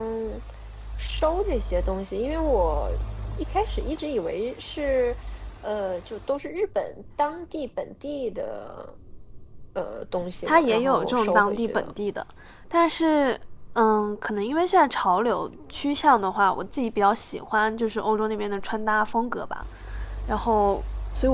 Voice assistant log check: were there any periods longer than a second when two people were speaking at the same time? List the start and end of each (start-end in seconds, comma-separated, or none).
10.4-11.9